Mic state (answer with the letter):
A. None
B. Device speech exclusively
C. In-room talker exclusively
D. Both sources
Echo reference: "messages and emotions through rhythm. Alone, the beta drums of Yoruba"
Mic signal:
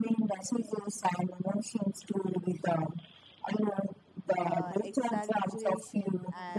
D